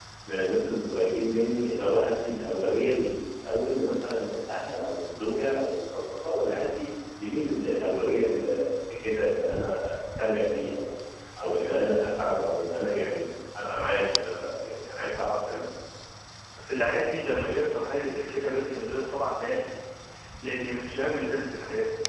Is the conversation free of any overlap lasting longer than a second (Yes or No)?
Yes